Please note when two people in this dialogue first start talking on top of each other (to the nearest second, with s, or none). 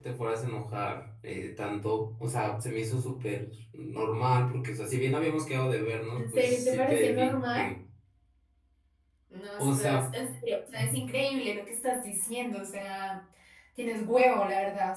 6 s